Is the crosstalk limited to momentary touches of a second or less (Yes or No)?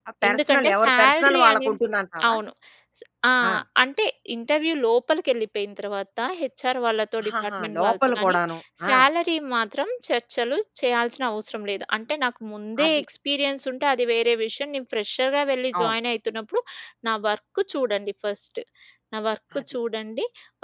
No